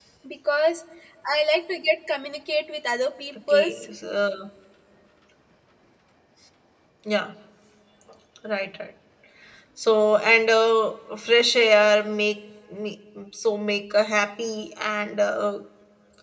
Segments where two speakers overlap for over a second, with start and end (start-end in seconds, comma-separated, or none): none